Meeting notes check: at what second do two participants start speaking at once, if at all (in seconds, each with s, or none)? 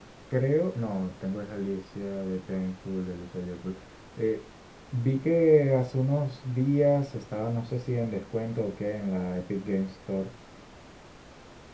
none